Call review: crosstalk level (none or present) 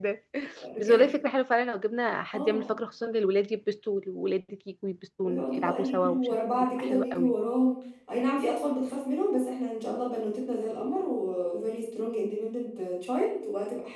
present